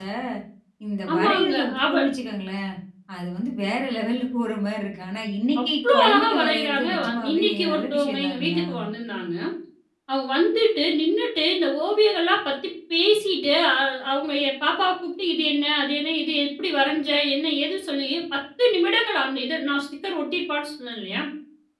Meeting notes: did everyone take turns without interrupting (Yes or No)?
No